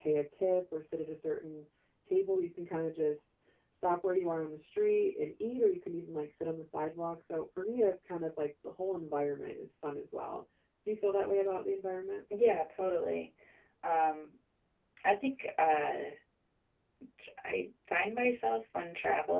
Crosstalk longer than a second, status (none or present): none